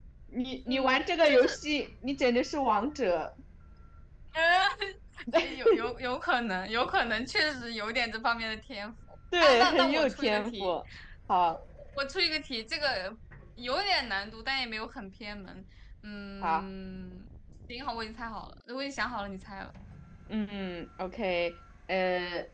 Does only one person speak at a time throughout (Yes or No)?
No